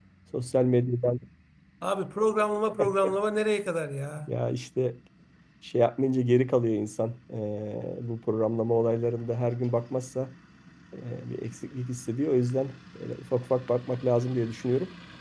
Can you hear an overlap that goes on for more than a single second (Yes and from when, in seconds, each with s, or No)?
No